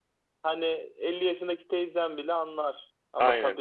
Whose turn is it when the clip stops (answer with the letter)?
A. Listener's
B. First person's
B